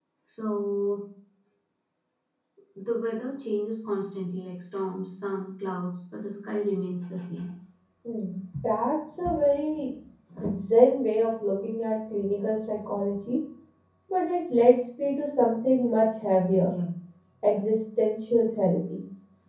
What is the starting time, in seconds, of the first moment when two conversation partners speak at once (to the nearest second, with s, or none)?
none